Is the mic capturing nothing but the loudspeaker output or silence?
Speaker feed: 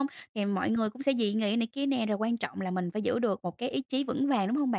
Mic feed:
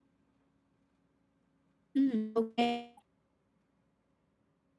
No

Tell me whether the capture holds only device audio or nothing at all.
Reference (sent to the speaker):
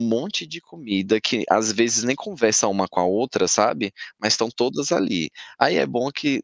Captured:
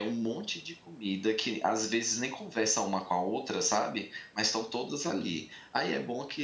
No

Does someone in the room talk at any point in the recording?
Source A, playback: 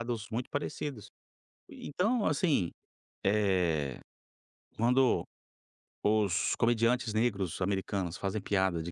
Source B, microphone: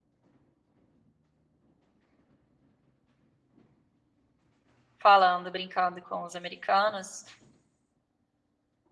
Yes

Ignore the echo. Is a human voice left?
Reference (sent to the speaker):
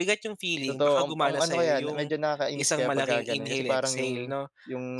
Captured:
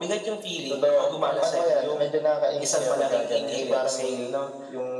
No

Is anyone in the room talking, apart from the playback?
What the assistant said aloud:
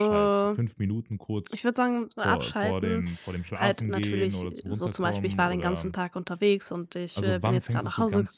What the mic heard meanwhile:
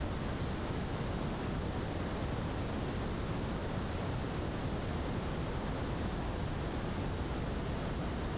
No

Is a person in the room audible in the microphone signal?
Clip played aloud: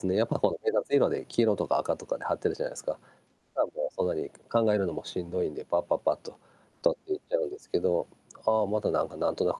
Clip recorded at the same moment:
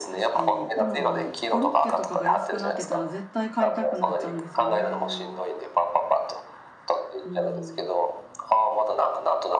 Yes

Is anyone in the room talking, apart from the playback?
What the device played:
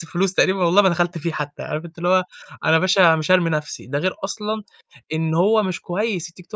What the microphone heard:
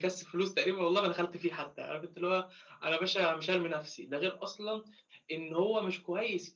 No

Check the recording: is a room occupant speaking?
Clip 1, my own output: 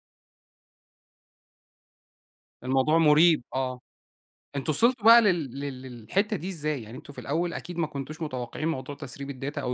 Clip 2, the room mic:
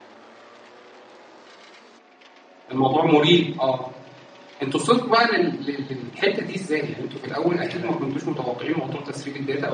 Yes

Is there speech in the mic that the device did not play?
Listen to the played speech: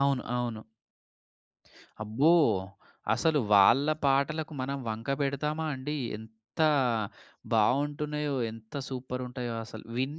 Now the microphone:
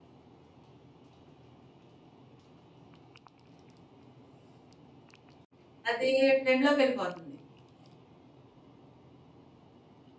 Yes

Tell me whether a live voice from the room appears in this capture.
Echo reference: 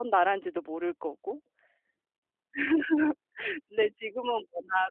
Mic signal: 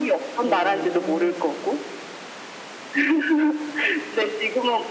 Yes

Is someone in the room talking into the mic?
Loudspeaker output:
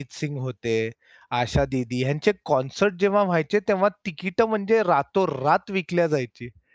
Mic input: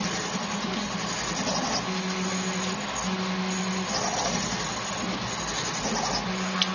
No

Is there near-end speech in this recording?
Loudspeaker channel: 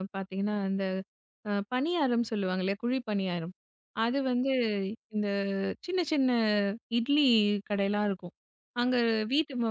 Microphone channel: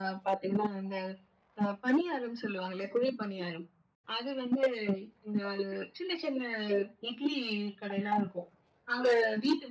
No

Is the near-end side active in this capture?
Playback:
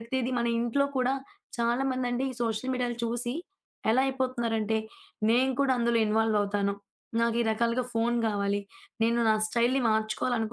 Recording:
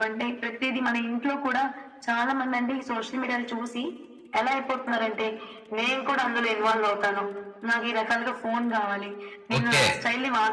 Yes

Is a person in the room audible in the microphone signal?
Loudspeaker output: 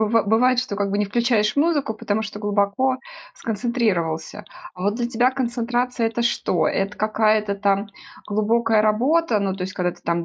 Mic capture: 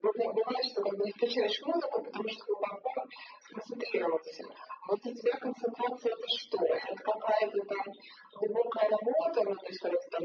No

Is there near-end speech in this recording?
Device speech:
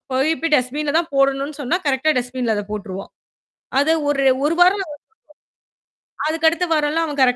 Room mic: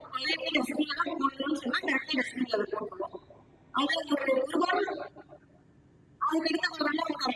No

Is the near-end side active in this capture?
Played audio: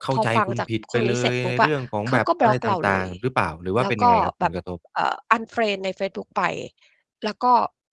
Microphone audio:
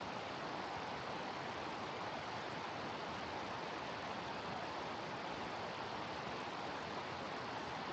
No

